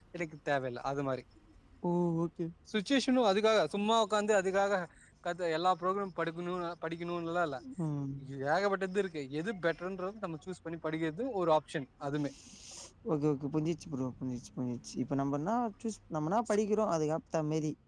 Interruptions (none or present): none